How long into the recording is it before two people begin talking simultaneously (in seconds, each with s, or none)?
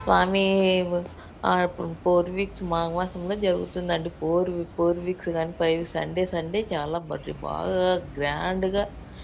none